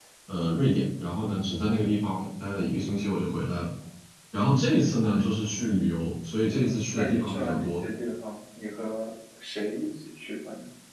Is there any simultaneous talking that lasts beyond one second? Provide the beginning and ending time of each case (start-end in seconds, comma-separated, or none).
6.5-7.8